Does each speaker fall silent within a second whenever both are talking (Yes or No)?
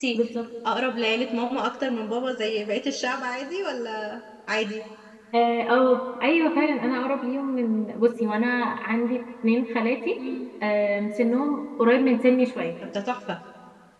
Yes